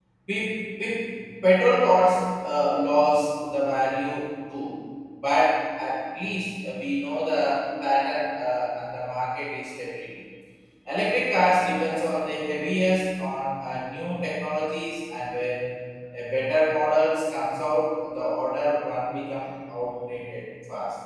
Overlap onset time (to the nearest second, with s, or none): none